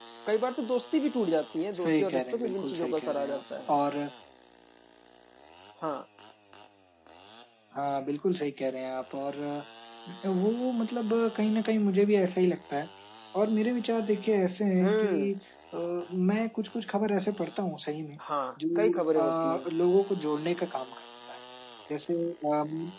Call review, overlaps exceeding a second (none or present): present